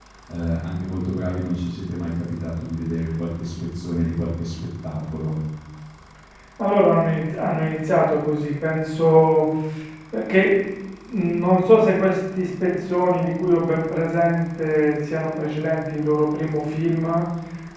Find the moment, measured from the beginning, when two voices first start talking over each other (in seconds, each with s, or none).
none